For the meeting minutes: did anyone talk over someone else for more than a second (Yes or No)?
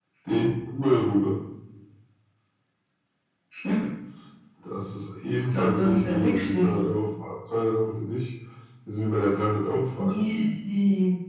Yes